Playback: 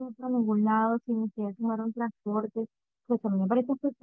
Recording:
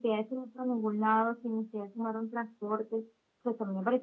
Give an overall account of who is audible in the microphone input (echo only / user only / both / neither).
echo only